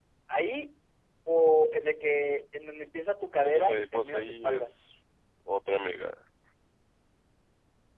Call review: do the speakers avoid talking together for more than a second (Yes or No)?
No